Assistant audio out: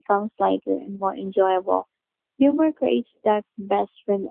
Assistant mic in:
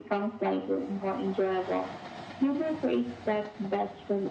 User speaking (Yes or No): No